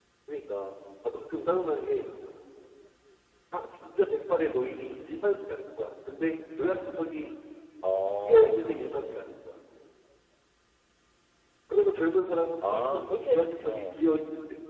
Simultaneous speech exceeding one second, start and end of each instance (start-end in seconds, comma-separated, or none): 12.6-14.0